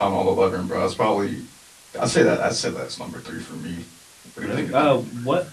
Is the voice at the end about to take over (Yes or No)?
Yes